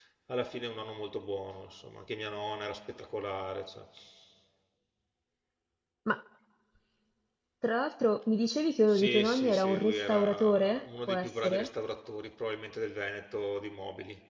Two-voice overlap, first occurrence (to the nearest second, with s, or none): 9 s